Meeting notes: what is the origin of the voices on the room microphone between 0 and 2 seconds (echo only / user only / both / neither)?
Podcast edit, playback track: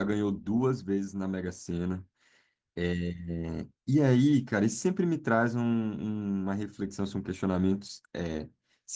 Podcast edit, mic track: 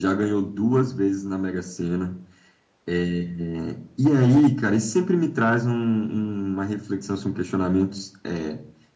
echo only